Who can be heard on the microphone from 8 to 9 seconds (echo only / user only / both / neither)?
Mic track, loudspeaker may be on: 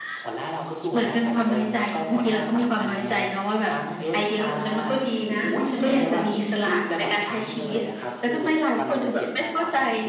echo only